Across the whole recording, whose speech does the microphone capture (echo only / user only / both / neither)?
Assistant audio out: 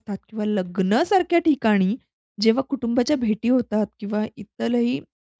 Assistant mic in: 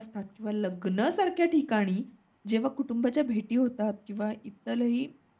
echo only